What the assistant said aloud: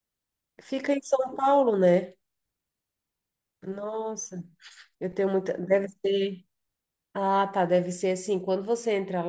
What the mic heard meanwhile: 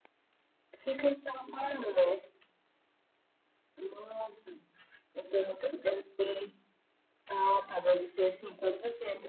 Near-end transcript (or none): none